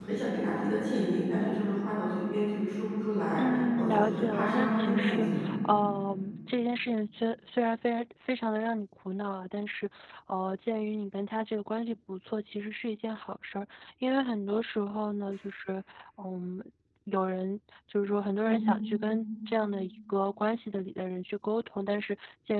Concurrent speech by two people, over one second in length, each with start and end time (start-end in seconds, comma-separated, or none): 3.4-5.3